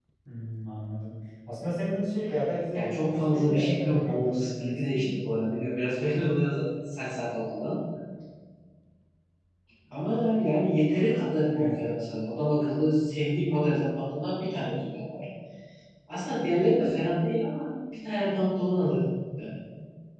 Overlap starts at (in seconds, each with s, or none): 2.7 s